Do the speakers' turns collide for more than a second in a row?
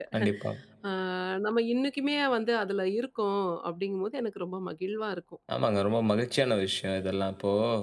No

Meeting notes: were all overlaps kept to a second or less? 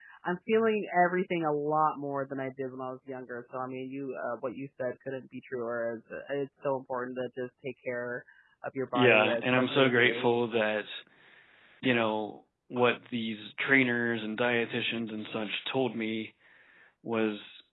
No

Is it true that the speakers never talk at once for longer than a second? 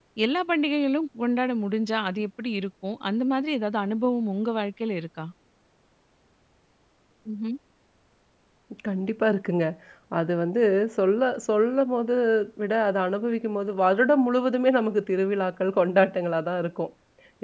Yes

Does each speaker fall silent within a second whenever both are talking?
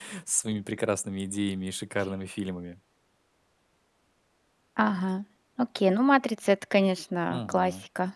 Yes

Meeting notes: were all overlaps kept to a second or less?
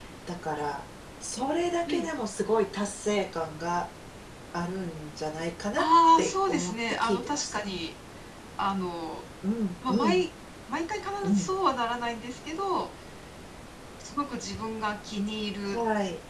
No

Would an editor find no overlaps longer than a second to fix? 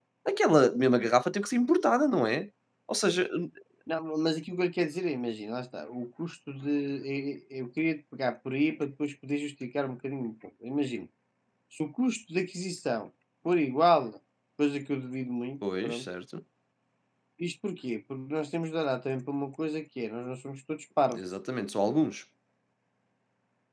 Yes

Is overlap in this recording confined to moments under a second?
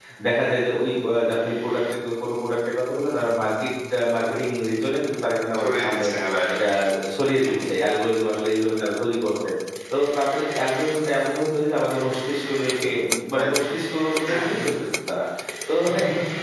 Yes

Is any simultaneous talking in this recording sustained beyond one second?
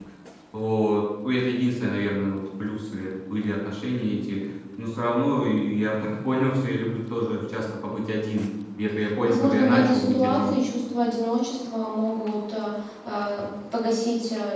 Yes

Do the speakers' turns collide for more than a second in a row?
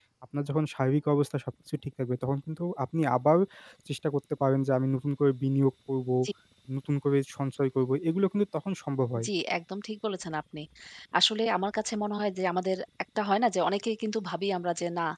No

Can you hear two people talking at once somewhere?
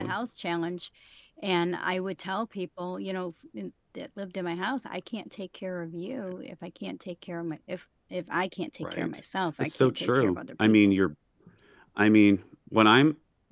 Yes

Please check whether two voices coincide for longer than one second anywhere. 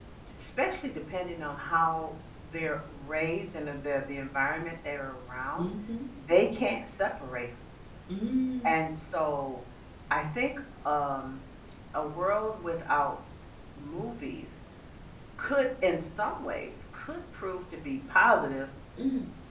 No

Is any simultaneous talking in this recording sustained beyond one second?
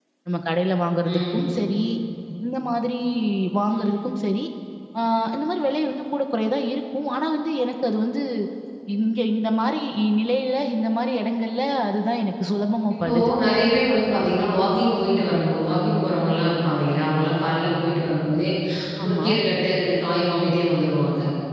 No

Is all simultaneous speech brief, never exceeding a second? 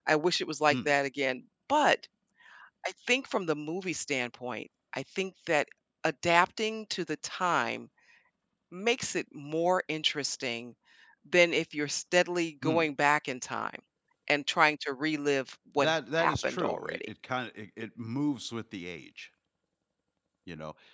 No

